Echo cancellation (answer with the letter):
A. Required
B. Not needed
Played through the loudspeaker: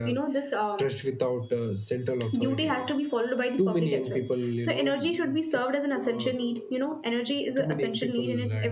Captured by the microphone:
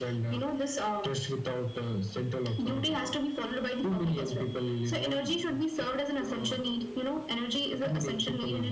A